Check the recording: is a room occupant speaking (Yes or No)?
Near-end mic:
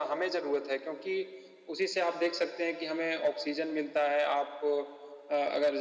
No